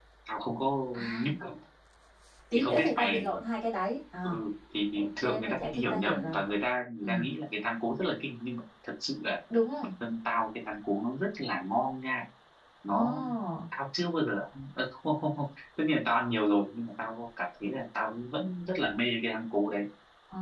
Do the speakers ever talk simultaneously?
Yes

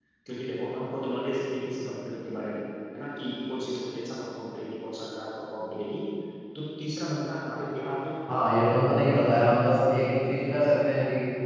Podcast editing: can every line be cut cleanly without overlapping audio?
Yes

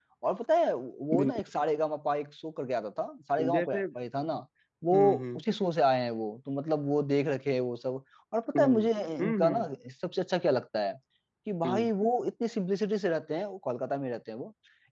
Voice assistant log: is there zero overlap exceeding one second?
Yes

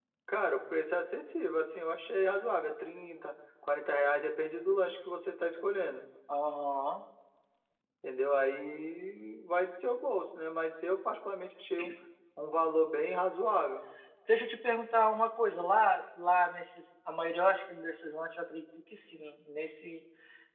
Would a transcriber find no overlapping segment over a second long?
Yes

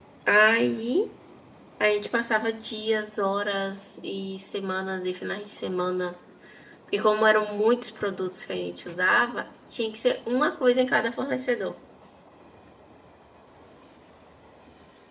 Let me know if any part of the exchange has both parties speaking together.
No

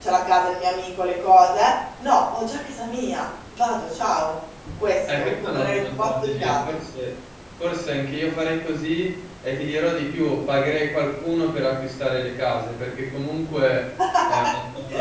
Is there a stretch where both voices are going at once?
Yes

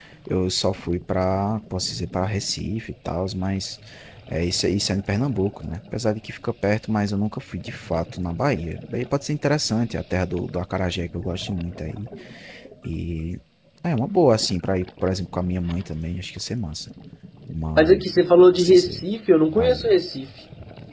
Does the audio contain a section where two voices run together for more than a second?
No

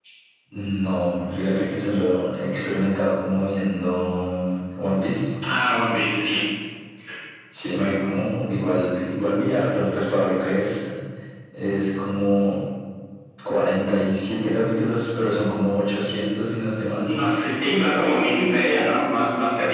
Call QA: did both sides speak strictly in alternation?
Yes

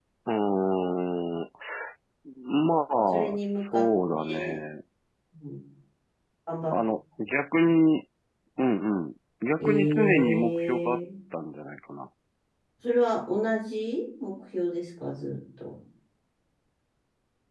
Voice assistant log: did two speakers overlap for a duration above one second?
Yes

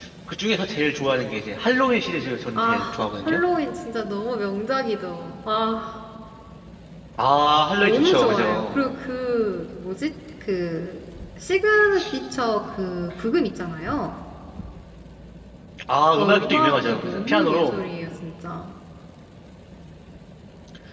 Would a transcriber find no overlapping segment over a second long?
No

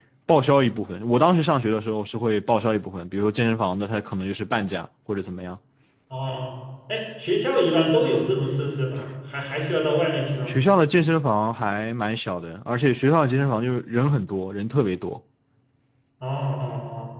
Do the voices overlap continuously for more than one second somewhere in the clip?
No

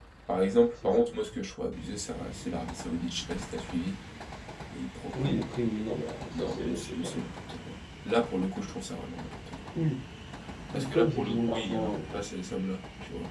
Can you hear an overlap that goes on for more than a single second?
Yes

